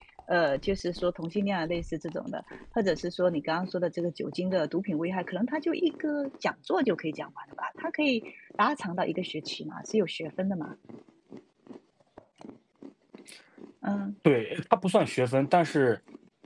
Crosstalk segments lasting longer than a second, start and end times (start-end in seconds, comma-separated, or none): none